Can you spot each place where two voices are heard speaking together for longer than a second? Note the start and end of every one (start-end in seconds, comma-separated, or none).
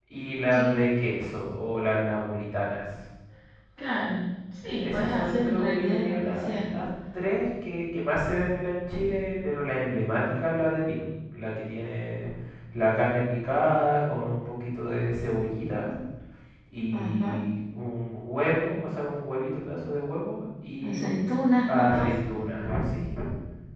4.7-6.7